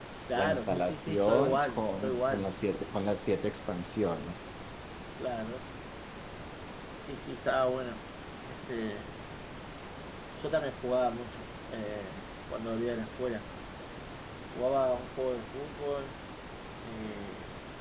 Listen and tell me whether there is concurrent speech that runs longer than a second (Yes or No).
Yes